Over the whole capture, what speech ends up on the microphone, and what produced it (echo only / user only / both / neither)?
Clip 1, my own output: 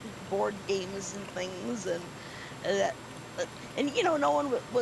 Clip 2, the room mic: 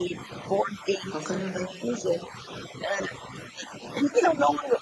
both